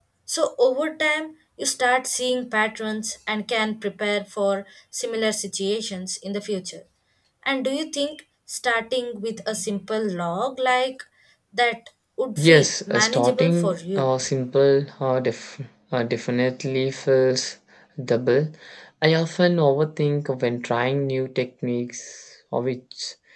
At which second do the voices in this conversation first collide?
12 s

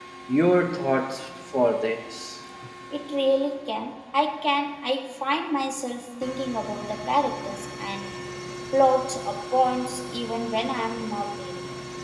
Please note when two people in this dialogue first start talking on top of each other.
none

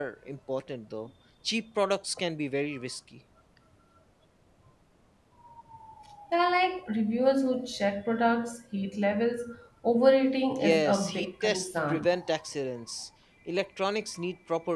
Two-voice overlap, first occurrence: 11 s

